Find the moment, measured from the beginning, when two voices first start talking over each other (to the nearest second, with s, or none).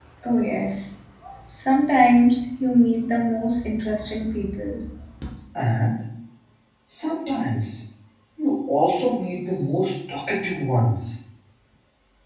none